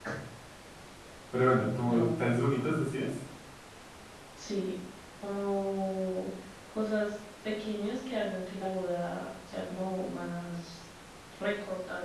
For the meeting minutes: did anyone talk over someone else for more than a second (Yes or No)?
No